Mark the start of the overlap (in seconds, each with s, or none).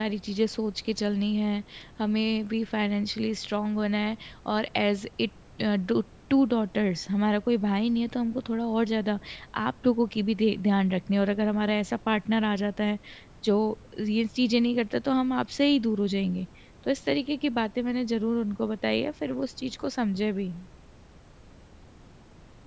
none